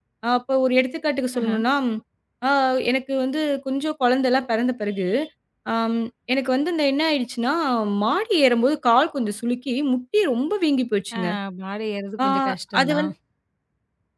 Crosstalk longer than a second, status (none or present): none